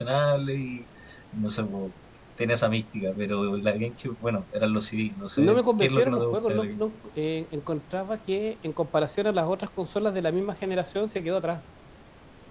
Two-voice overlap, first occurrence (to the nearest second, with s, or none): 5 s